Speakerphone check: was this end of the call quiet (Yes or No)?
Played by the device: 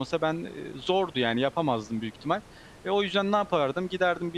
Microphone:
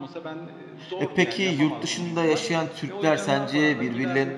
No